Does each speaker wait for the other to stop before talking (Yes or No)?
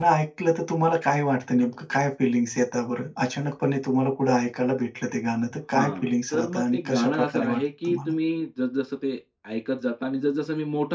No